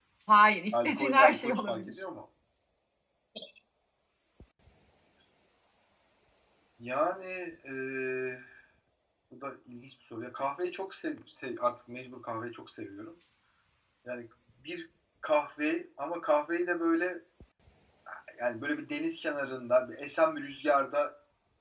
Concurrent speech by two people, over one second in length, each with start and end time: 0.7-1.9

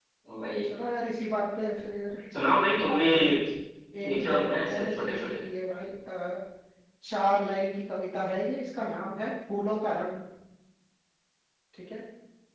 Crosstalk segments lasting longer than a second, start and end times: 4.0-5.3

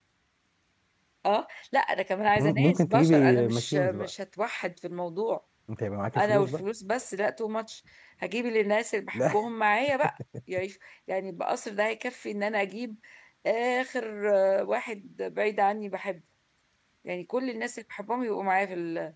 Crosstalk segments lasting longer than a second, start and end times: 2.4-4.1

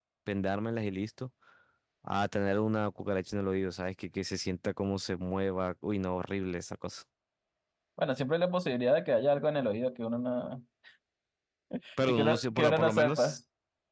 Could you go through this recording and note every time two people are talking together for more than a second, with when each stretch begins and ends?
12.0-13.4

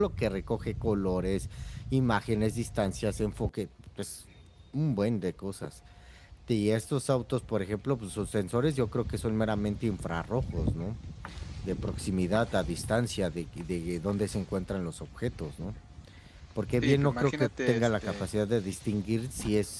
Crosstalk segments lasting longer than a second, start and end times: 16.8-18.3

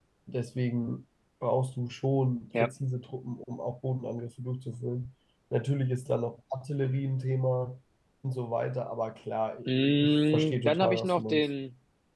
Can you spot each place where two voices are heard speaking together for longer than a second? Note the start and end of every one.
9.7-11.4

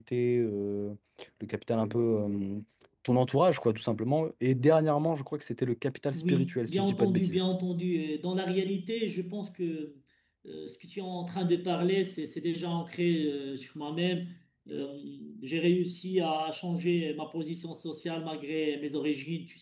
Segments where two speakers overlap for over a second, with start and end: 6.1-7.4

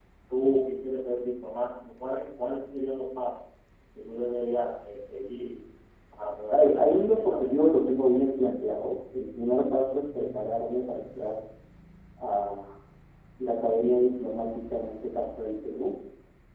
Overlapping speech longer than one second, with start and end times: 6.5-8.1

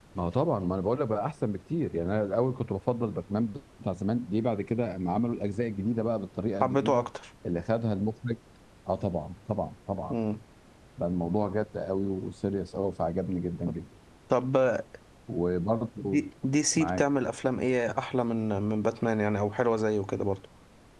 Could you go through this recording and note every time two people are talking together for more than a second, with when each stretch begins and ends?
none

